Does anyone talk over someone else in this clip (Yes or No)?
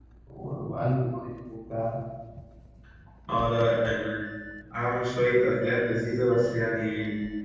No